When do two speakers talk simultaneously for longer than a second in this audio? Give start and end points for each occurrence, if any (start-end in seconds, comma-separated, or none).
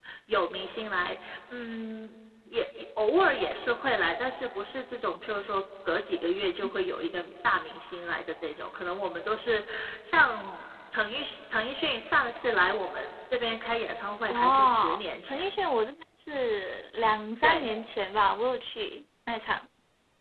14.3-15.6